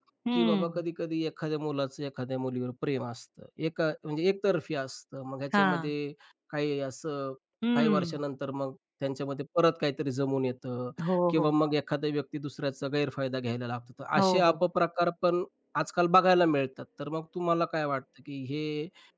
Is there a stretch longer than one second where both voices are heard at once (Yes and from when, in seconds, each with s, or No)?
No